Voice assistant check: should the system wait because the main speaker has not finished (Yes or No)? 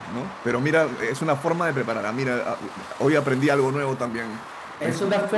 No